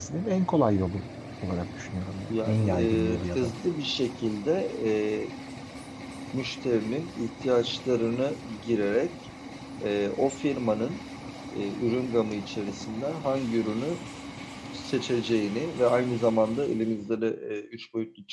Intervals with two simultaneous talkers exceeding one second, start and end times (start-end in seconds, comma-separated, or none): 2.3-3.5